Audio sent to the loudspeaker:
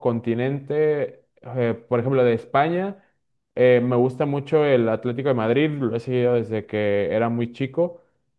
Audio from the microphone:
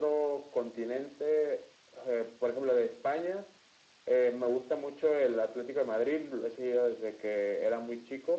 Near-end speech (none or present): none